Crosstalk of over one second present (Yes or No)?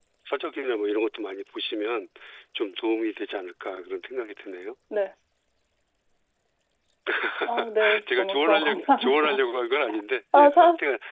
Yes